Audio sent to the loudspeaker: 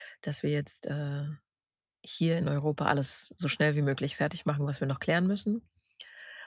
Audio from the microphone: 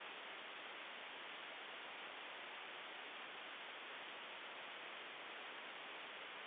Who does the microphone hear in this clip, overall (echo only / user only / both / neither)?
neither